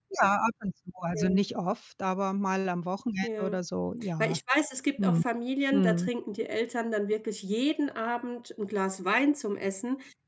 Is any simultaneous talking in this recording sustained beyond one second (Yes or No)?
No